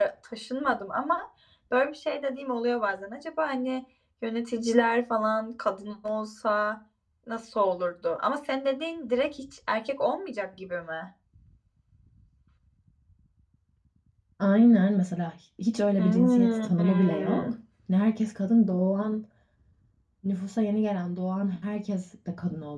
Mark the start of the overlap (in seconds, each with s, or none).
16.0 s